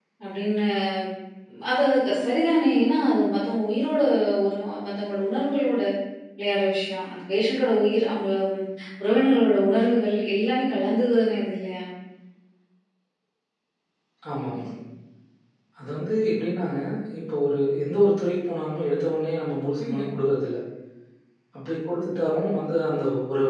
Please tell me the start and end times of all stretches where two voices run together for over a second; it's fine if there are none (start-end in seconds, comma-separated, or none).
none